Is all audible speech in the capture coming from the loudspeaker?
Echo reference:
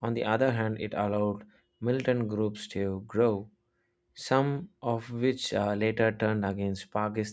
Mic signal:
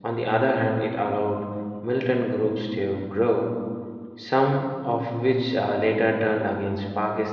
Yes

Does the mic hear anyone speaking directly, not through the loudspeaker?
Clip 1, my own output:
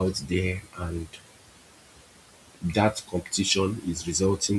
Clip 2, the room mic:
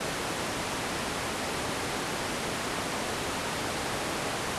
No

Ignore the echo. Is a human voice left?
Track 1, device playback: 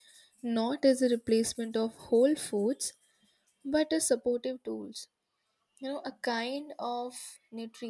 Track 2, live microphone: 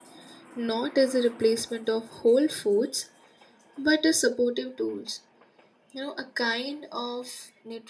No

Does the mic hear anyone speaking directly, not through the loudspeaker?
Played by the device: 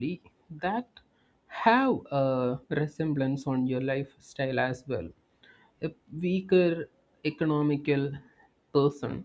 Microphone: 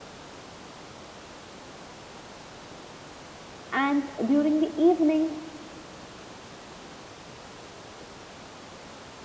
Yes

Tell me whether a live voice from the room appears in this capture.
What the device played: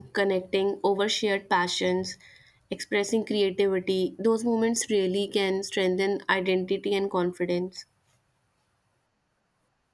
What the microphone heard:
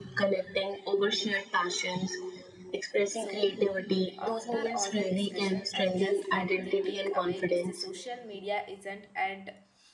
Yes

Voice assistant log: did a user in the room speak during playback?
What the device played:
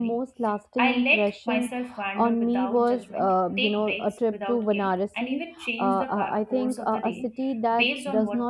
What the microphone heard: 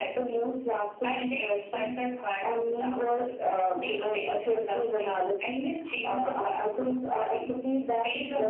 Yes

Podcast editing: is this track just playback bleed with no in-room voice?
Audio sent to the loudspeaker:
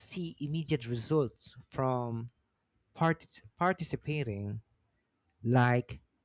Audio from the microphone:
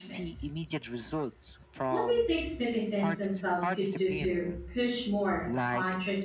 No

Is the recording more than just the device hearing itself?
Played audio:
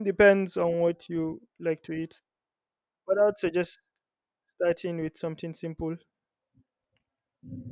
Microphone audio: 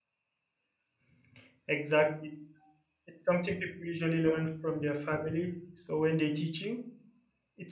Yes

